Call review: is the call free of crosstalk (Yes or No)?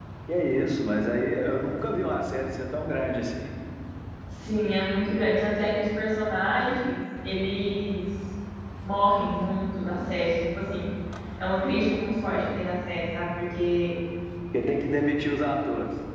Yes